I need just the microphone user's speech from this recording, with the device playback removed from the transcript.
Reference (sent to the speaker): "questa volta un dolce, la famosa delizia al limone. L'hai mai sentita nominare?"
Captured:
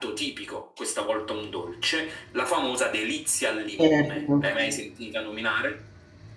Certo.

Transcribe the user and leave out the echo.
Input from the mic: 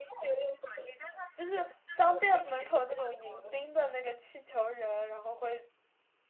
就是商店门口那种迎宾的那个气球人，然后会，

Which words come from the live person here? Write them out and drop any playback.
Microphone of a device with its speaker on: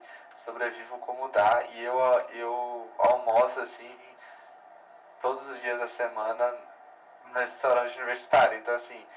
none

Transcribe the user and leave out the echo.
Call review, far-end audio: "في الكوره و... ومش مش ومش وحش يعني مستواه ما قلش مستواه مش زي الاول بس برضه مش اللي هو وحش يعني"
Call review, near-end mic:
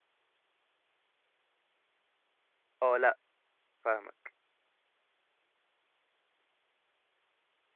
اه لا فاهمك

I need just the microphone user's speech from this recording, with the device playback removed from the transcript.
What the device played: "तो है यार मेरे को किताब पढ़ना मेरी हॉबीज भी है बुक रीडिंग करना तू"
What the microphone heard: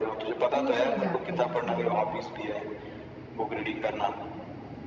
खुश हो जाते हैं सही में

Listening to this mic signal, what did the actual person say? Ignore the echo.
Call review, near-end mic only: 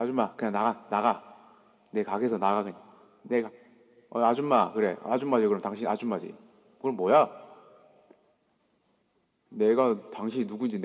none

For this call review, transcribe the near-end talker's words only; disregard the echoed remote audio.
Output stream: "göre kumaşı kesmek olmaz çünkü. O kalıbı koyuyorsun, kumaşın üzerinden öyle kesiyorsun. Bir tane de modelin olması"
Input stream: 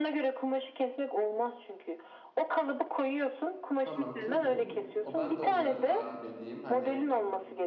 Tamam kim bu? O ben de onları takip edeyim. Hani

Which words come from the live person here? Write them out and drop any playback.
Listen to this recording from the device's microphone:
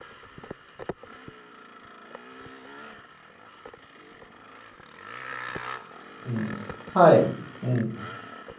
うん。はい、うん。

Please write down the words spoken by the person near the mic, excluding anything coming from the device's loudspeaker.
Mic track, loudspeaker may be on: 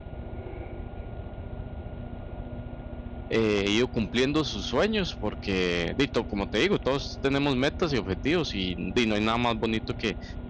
eh, ido cumpliendo sus sueños, porque, dito, como te digo, todos tenemos metas y objetivos y, di, no hay nada más bonito que

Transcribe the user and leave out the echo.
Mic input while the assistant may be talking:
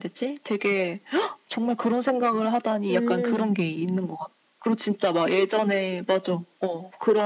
음.

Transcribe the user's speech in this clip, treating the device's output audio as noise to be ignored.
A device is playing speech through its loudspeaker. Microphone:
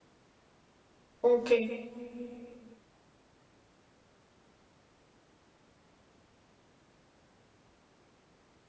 ok.

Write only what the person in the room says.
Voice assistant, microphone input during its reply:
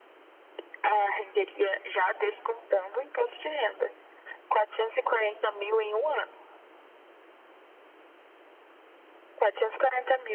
none

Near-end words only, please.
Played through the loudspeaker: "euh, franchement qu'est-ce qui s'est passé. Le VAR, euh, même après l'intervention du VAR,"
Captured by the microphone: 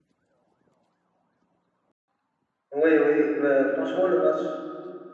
oui, oui, euh, franchement, le match.

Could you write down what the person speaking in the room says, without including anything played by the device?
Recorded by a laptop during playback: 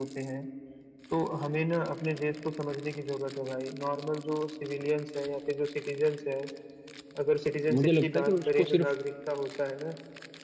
मुझे लगता है कि उसको सिर्फ

